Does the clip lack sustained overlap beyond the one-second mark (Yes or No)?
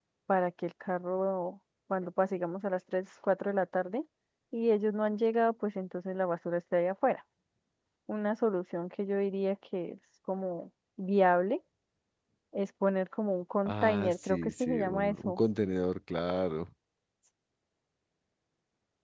No